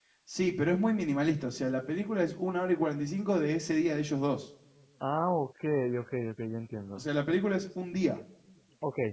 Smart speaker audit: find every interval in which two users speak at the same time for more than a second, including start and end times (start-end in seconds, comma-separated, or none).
none